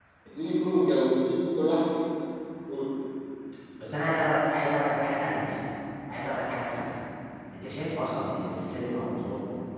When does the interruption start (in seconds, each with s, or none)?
none